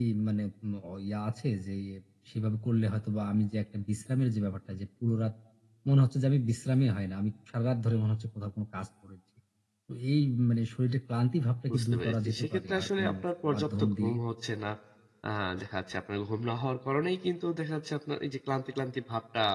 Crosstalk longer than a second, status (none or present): present